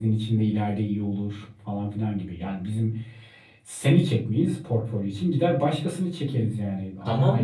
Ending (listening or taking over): taking over